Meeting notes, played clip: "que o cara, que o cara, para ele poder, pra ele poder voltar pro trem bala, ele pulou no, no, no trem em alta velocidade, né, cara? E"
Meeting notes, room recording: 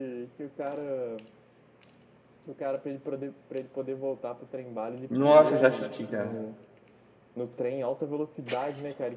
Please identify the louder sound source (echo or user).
user